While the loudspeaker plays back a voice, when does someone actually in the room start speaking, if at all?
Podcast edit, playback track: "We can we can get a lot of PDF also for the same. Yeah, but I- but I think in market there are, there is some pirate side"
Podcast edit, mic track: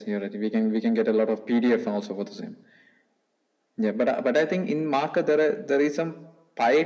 none

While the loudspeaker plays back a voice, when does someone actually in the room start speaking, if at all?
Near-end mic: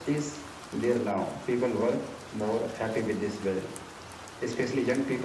none

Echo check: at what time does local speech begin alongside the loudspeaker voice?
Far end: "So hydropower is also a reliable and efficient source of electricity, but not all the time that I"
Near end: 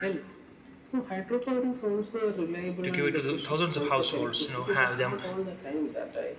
3 s

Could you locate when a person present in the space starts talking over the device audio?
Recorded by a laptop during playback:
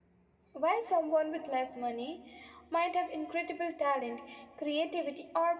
1 s

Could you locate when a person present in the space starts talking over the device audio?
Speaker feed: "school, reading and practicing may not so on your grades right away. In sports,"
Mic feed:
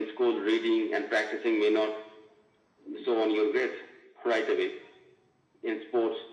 none

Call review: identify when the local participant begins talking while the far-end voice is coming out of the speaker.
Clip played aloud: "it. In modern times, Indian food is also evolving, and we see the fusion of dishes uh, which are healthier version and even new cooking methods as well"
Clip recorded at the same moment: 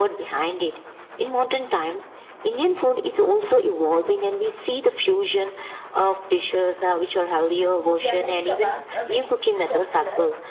8 s

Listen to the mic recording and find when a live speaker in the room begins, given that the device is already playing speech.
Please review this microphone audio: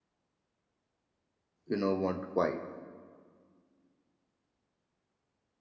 2 s

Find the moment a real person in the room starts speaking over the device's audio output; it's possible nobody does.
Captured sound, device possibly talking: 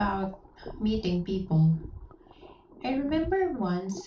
none

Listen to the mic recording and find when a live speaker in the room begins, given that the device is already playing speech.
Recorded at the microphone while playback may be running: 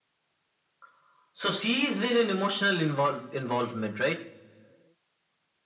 none

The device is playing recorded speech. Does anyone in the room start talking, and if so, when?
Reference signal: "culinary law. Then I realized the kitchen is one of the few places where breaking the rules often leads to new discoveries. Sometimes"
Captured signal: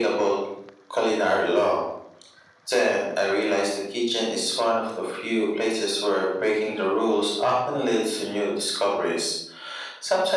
none

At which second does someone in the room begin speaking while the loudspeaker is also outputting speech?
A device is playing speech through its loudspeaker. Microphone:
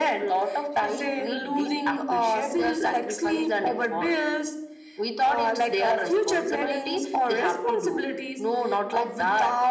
none

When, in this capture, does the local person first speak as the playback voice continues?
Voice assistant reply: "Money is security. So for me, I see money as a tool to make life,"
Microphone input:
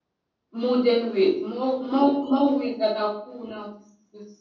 1 s

